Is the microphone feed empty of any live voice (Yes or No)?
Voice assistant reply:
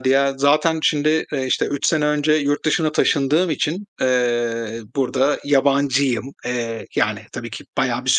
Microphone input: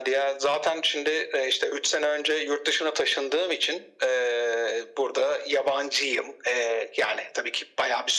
Yes